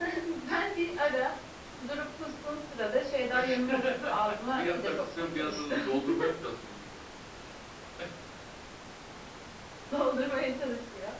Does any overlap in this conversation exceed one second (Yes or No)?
Yes